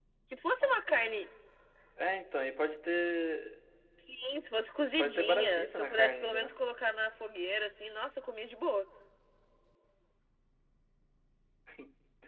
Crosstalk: present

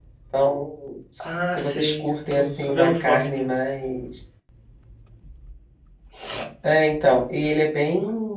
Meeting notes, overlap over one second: present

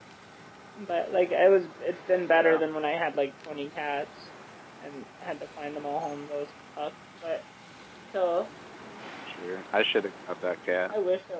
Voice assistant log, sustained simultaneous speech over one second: none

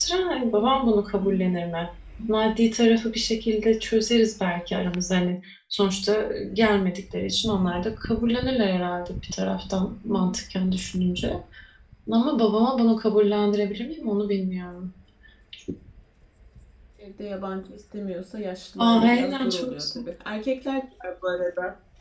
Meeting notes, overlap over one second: present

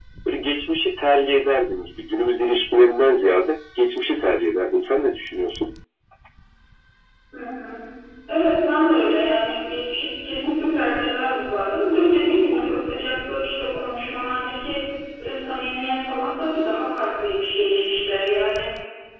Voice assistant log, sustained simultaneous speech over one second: none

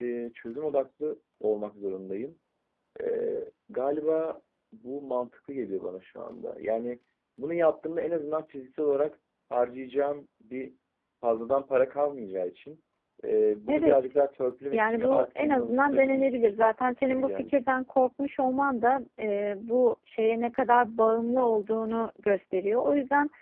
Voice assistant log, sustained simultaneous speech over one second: present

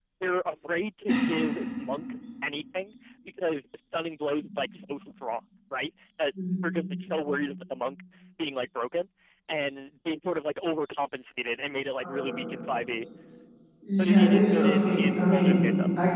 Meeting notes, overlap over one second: present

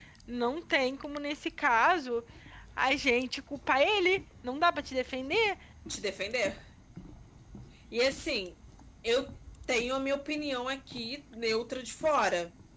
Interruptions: none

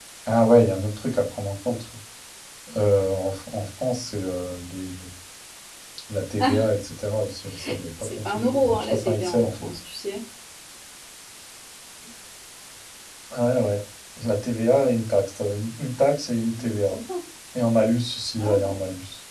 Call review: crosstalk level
present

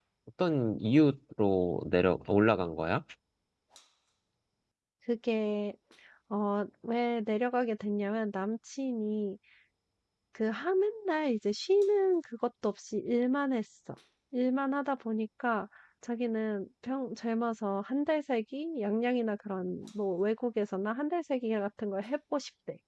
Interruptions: none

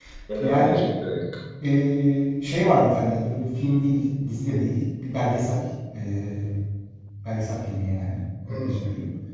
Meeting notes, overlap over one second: none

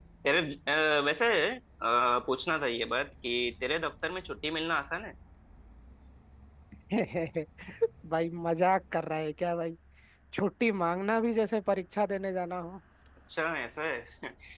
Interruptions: none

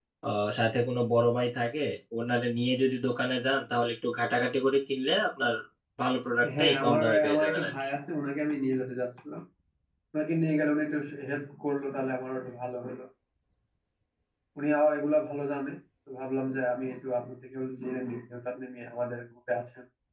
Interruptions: present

